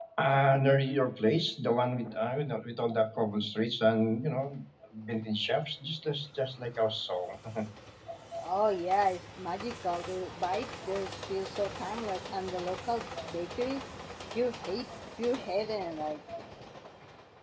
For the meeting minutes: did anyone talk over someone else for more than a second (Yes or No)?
No